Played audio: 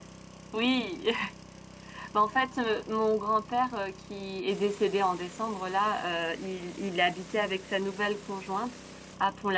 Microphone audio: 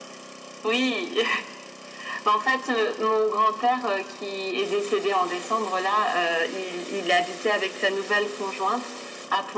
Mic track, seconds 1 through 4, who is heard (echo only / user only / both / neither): echo only